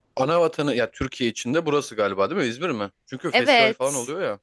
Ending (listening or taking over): taking over